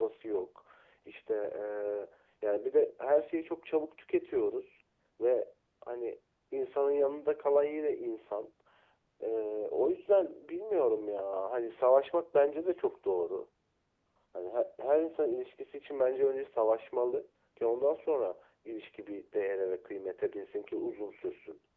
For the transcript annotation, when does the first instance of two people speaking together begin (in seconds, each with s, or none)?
none